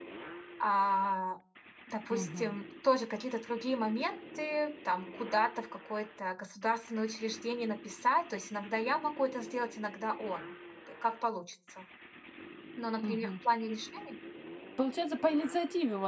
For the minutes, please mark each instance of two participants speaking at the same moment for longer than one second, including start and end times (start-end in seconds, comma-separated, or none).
none